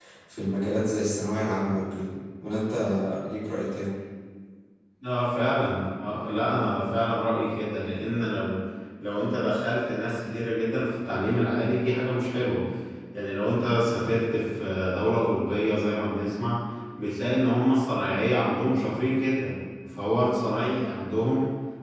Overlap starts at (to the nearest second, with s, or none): none